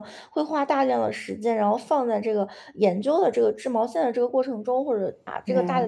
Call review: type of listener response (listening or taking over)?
listening